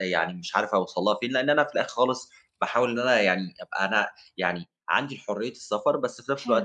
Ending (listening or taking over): listening